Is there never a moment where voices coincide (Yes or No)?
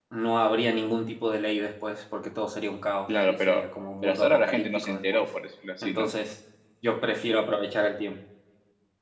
No